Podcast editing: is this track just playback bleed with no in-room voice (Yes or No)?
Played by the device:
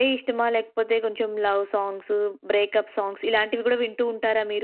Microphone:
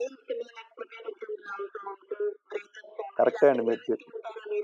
No